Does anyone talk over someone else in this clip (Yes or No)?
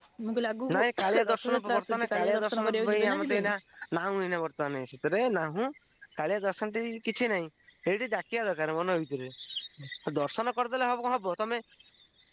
Yes